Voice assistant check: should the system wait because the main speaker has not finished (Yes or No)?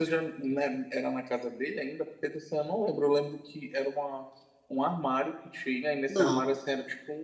Yes